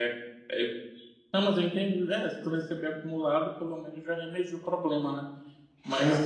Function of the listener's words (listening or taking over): listening